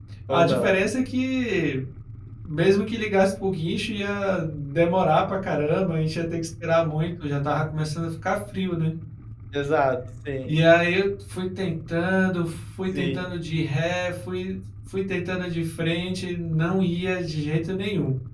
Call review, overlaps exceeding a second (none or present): none